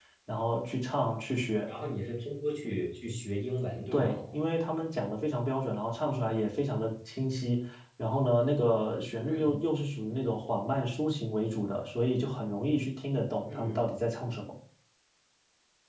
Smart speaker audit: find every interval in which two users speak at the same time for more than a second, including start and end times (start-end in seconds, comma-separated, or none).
none